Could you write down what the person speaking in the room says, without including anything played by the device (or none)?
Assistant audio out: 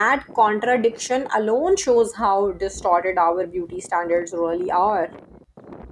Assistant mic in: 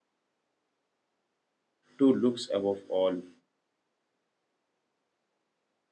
to looks above all.